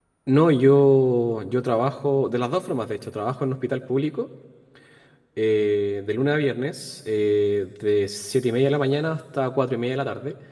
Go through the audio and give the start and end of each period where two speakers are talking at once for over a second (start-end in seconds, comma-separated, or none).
none